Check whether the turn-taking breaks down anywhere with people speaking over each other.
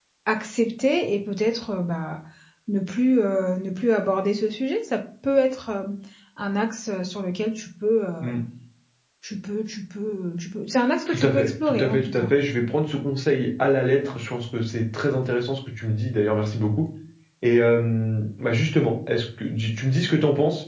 Yes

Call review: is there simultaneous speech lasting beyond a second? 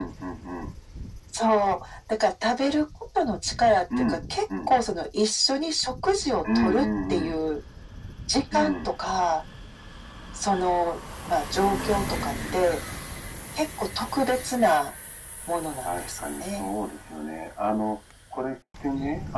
Yes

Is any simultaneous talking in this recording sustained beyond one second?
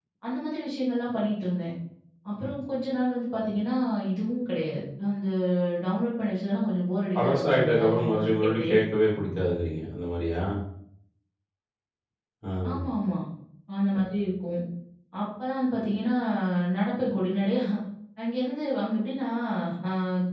Yes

